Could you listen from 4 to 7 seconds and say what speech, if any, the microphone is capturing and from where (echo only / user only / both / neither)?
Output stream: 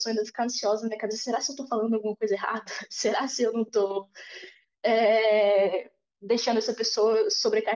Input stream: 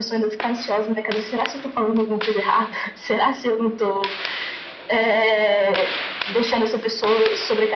echo only